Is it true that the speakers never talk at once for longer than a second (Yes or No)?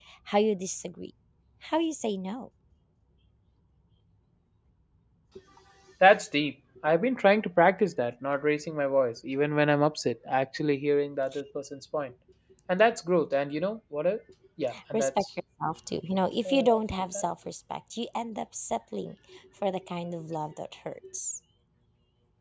Yes